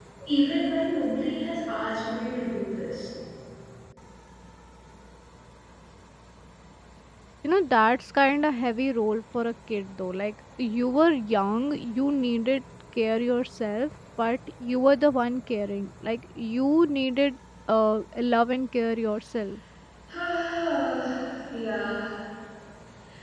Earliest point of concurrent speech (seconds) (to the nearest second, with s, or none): none